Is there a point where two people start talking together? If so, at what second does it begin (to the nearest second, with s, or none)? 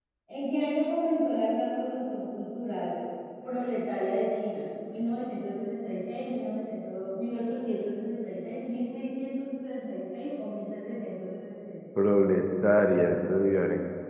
none